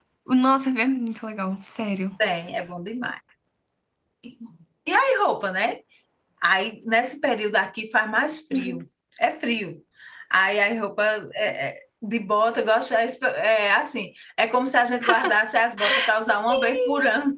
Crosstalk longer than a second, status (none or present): none